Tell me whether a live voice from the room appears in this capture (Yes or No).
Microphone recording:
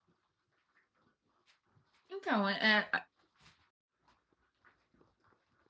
Yes